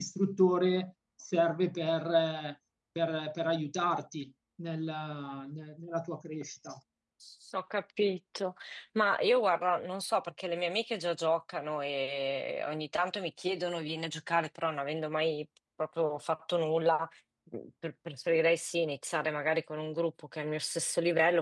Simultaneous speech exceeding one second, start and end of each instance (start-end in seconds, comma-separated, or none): none